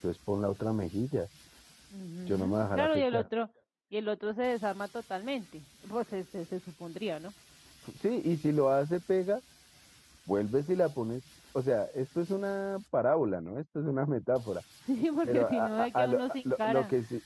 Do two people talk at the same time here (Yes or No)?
Yes